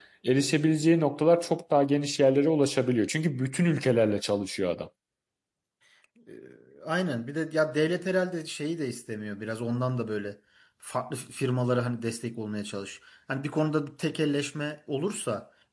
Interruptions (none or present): none